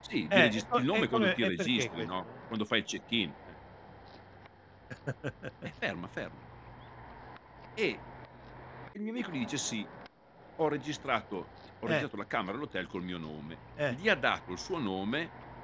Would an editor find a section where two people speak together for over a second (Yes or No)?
Yes